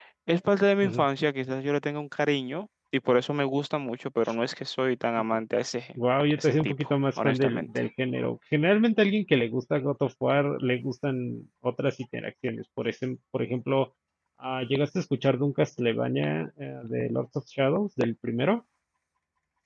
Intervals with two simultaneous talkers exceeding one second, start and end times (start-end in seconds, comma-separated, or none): 6.4-7.7